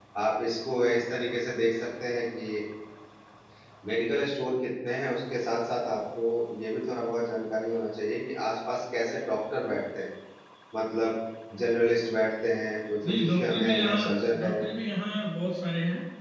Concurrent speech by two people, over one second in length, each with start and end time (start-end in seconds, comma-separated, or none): 13.1-14.5